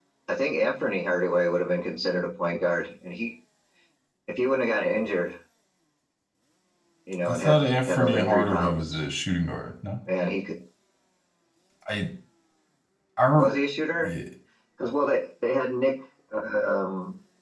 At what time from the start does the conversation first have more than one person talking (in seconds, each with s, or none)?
7.3 s